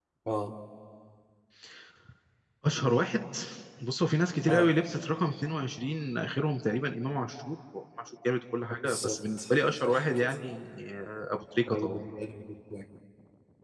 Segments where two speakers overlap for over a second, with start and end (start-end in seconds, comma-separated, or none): 8.8-10.3